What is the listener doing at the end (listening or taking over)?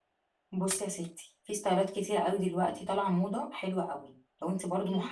listening